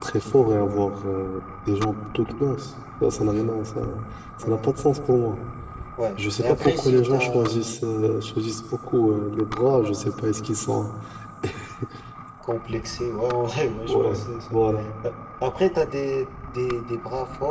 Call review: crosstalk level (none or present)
present